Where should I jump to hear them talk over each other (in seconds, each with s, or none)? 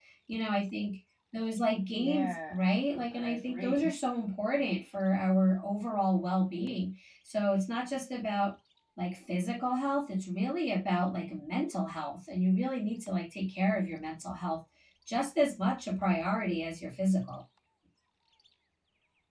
1.8 s